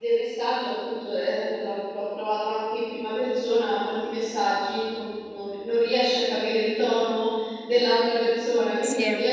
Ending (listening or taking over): listening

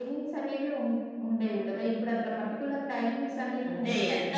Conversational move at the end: taking over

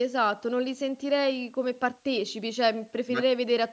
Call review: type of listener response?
listening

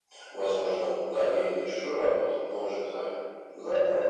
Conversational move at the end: taking over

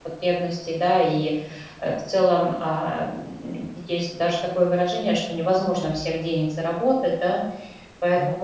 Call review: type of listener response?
listening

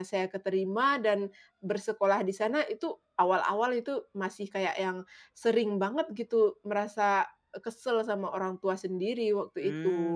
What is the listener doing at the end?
taking over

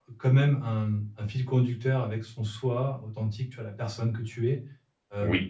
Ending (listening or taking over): listening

